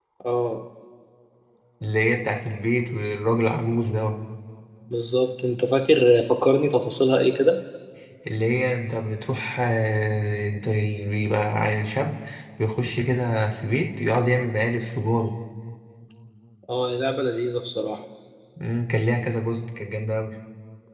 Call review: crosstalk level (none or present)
none